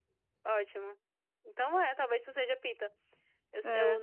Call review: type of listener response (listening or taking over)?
listening